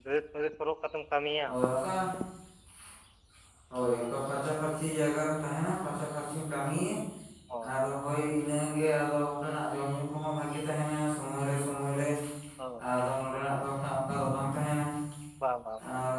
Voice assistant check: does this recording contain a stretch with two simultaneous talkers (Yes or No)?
No